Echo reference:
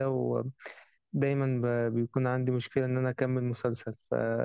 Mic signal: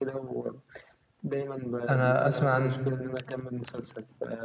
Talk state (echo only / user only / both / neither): both